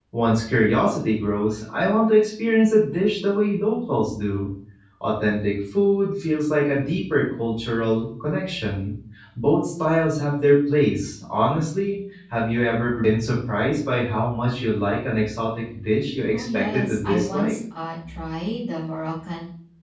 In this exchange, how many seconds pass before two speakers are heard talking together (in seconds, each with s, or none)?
16.3 s